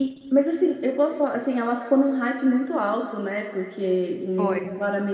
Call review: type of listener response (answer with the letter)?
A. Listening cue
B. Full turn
A